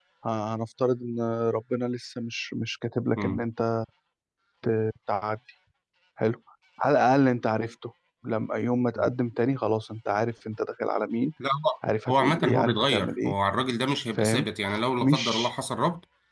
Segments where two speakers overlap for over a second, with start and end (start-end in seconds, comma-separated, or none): 12.1-13.3